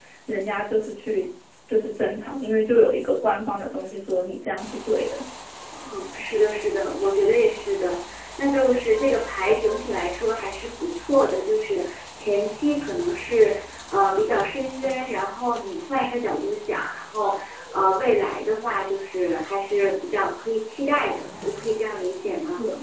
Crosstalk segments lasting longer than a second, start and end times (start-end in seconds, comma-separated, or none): none